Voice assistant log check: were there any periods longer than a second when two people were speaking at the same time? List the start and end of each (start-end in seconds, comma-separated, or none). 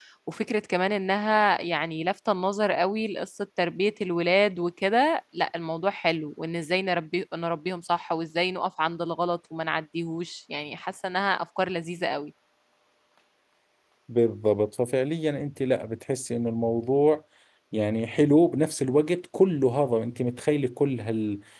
none